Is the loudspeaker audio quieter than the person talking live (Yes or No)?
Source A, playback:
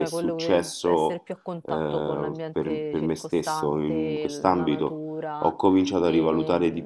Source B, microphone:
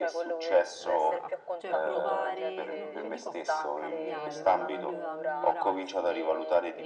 No